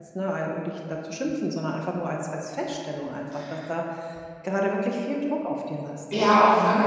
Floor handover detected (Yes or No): Yes